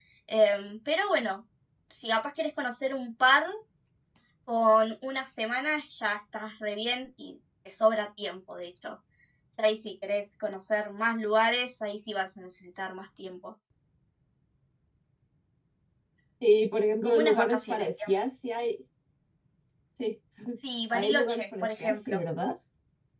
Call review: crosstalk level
present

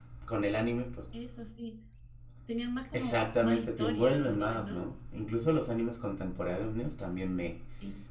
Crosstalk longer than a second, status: present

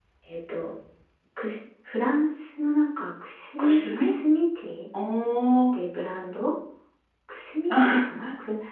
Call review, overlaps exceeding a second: none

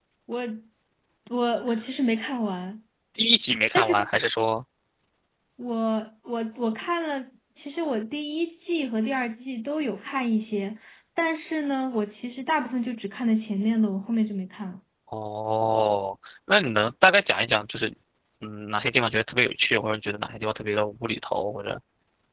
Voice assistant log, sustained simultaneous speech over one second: none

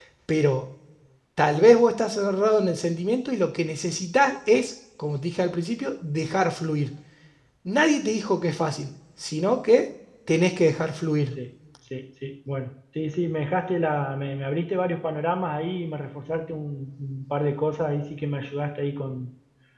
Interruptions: none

